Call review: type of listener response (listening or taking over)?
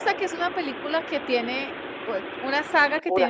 listening